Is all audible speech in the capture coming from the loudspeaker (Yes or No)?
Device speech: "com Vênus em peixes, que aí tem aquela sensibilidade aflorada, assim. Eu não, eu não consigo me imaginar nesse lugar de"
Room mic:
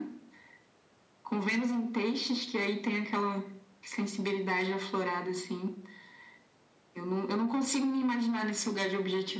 Yes